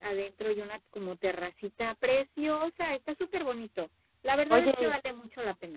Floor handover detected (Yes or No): No